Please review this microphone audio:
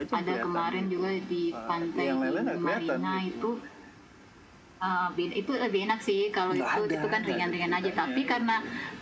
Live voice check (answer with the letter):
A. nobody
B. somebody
A